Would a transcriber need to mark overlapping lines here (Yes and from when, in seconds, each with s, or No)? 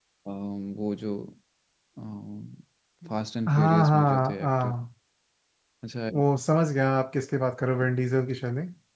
Yes, from 3.5 s